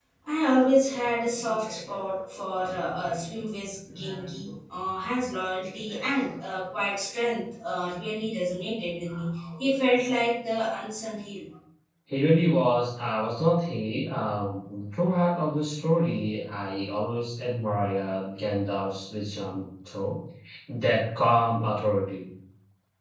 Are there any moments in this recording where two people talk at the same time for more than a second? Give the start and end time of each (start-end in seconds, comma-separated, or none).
none